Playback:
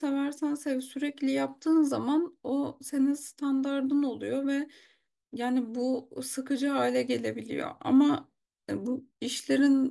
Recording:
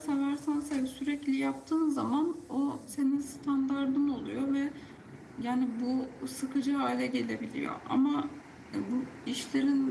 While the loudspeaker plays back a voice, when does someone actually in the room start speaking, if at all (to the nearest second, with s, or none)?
none